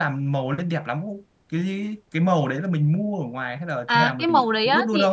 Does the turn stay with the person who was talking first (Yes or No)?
No